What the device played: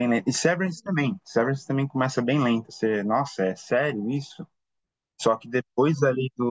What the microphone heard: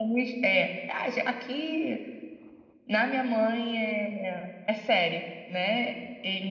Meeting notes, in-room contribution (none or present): present